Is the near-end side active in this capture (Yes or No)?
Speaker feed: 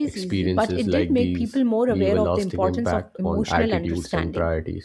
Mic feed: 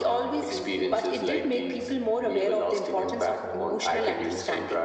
Yes